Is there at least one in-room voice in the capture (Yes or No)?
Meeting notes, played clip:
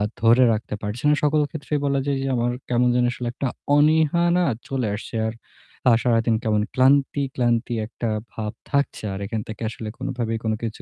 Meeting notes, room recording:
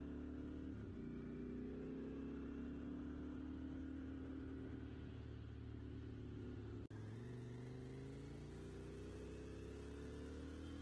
No